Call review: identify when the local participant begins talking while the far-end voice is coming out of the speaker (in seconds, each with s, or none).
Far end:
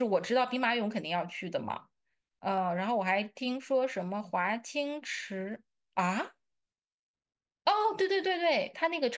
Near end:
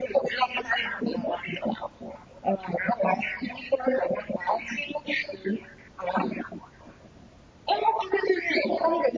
none